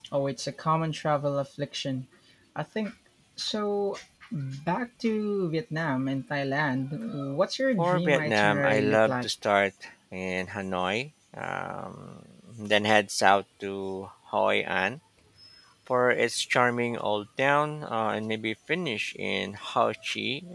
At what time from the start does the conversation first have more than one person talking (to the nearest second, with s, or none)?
8 s